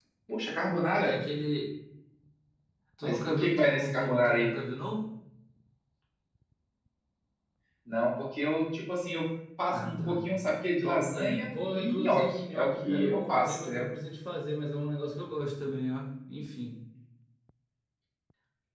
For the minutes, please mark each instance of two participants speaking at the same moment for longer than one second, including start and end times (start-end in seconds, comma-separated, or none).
3.0-4.5, 10.8-13.8